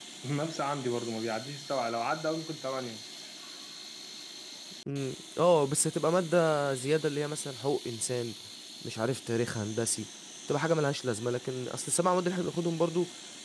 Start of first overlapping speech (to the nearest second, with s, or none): none